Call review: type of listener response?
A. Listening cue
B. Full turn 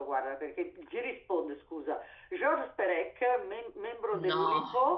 A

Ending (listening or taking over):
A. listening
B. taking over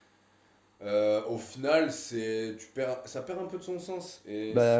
A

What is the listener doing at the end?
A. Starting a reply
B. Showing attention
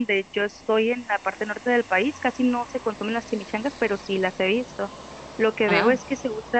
B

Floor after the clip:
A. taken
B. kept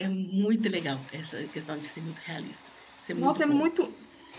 A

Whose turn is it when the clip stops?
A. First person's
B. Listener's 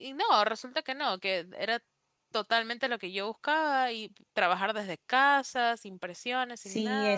B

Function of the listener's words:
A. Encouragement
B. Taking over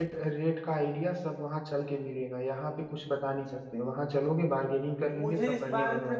B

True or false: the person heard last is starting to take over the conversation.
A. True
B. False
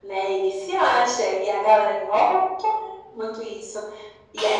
B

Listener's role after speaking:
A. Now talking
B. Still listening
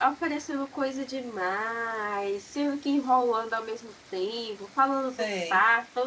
B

